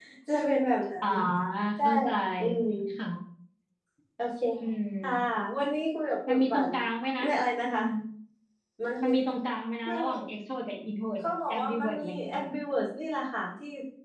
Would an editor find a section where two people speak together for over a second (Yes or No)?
Yes